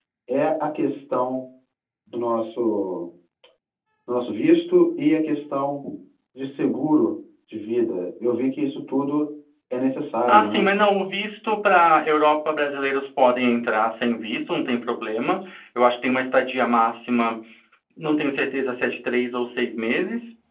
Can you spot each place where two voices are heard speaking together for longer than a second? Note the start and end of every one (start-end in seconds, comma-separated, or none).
none